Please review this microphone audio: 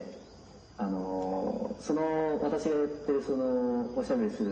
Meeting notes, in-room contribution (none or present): none